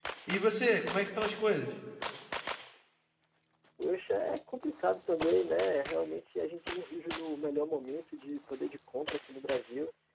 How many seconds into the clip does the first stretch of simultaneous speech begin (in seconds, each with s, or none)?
none